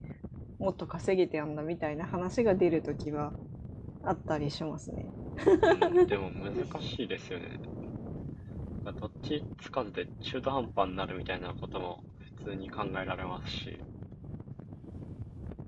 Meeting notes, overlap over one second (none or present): none